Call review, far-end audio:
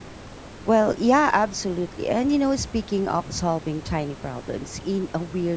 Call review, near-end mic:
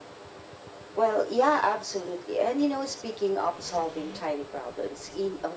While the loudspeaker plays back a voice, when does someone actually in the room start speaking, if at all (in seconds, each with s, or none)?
none